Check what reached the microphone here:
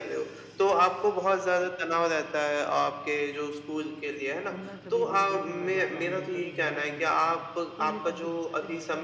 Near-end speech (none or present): present